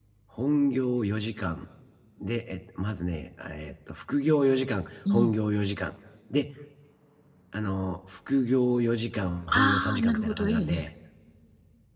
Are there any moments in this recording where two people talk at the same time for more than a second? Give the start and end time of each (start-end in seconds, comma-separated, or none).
9.5-10.8